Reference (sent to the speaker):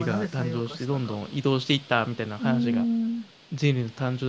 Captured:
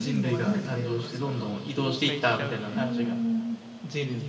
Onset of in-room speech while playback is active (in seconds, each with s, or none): 1.8 s